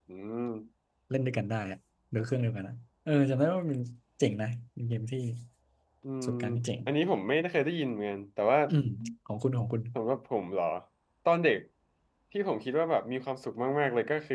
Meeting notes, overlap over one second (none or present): none